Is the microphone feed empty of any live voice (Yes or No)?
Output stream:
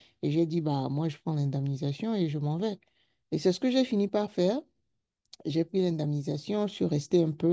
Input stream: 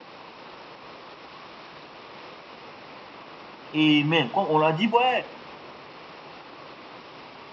No